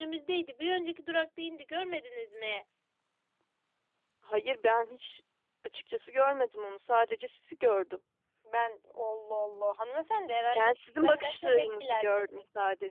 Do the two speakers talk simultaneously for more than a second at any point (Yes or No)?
Yes